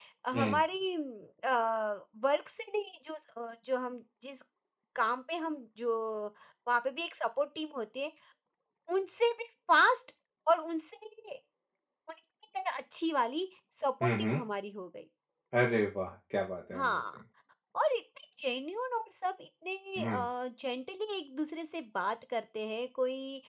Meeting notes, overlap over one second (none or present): none